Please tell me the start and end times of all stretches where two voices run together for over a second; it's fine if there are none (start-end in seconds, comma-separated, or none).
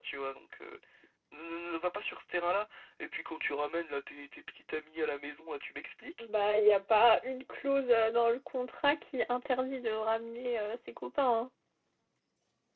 none